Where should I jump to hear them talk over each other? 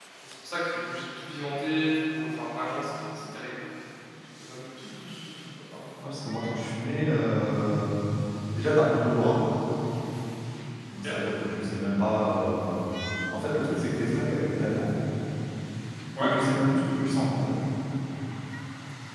none

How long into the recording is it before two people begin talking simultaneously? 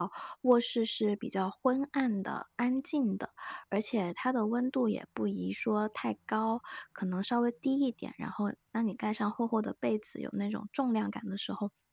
none

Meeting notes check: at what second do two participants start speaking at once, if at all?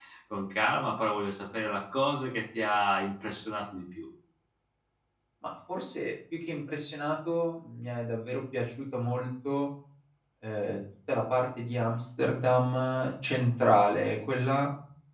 none

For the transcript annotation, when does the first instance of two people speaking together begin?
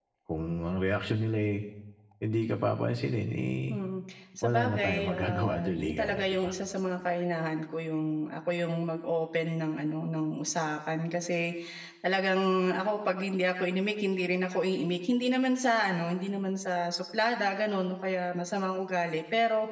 4.4 s

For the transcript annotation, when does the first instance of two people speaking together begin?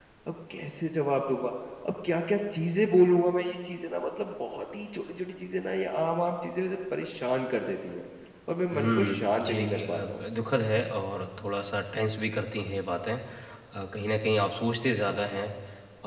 8.7 s

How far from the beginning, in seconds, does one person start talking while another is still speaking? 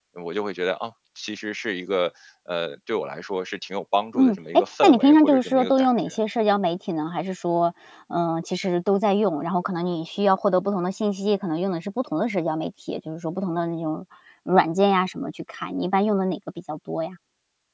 4.1 s

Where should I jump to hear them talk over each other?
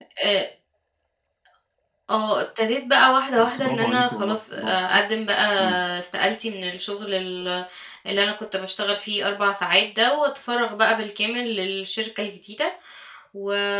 3.4 s

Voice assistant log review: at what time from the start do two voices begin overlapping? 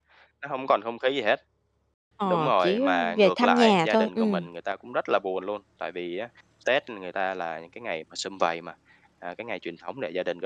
2.3 s

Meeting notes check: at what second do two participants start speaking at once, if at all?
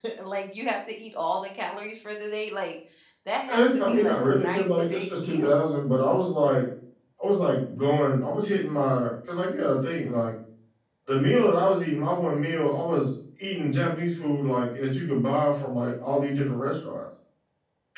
3.5 s

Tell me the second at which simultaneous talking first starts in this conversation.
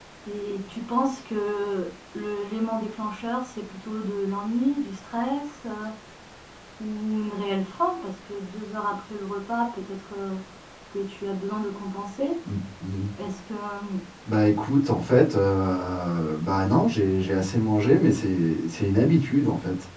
none

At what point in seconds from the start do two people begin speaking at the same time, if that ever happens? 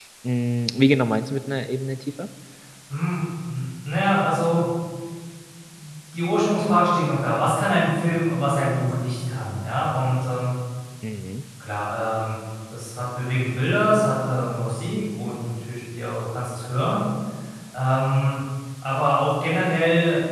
none

